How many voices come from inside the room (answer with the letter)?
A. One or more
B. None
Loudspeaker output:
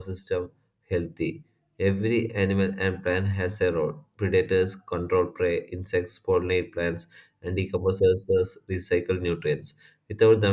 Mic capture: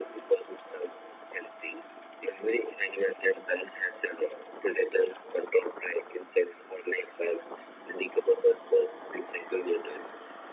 B